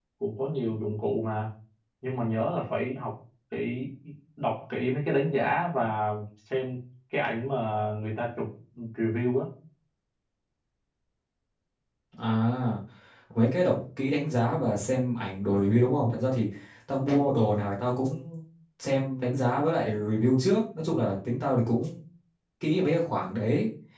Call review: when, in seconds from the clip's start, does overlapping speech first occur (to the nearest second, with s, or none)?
none